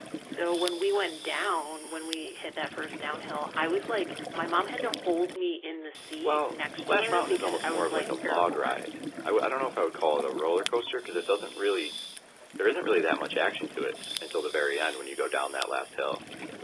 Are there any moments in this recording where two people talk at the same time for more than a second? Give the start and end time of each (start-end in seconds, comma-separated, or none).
6.2-8.8